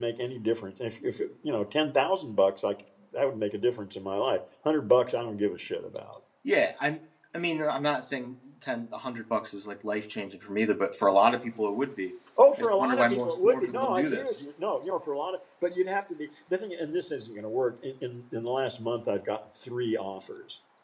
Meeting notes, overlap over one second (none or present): present